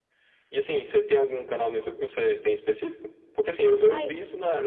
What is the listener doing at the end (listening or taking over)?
listening